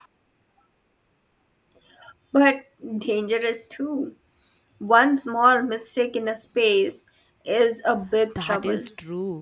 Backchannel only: No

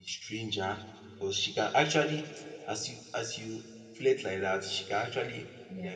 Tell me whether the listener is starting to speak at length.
No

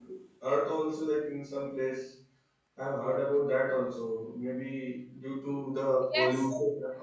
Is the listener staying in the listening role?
Yes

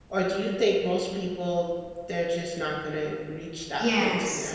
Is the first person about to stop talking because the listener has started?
Yes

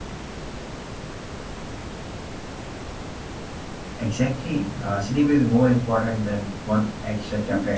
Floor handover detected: Yes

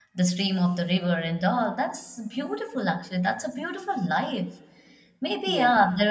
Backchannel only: Yes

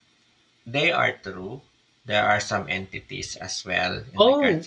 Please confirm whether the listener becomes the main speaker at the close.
Yes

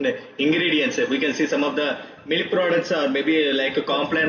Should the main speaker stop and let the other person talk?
No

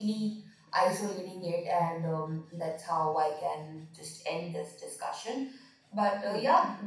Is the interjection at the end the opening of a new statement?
No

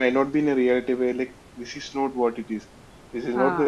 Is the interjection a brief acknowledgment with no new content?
Yes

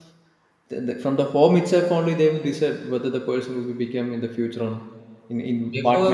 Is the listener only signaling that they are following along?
No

